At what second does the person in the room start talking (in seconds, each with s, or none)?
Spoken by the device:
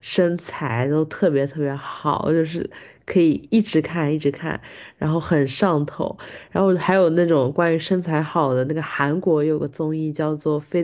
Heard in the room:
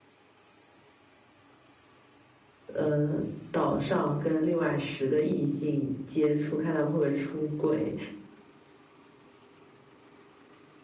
2.7 s